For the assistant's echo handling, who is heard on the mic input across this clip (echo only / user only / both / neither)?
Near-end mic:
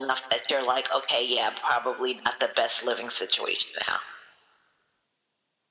echo only